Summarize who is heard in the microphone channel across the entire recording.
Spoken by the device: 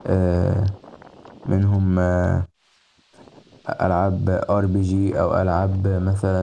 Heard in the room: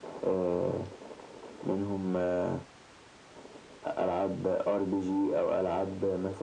echo only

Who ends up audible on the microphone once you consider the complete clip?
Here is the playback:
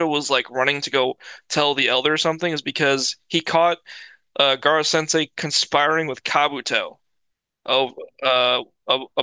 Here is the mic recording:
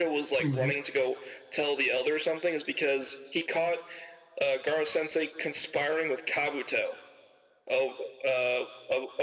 both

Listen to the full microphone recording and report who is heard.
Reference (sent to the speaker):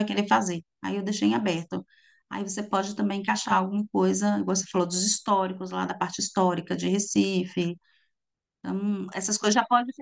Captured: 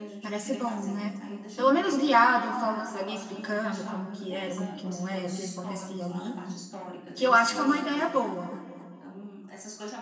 both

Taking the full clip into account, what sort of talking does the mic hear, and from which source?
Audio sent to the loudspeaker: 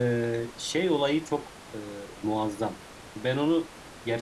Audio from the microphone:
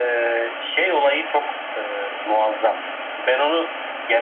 echo only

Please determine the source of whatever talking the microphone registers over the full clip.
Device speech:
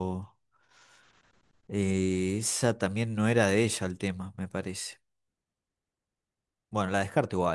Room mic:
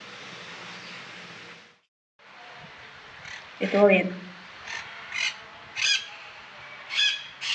user only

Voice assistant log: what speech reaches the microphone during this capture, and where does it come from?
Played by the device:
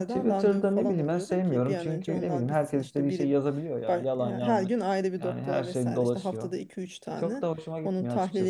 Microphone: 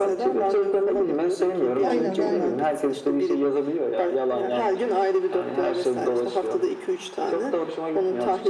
both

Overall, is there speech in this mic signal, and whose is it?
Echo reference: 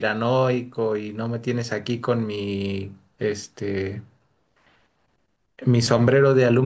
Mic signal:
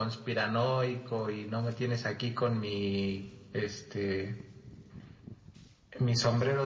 echo only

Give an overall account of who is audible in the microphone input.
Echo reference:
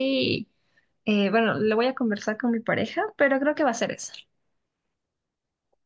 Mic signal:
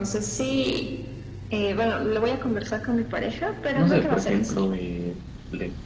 both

